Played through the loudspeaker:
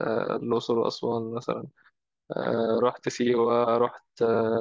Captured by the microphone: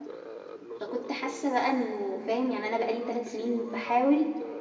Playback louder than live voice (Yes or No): No